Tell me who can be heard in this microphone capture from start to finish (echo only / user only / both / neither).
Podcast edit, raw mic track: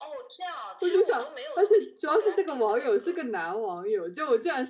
both